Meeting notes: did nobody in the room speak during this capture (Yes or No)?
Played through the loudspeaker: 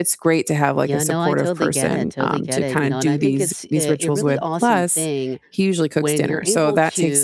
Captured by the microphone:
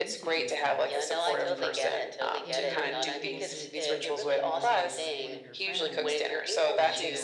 No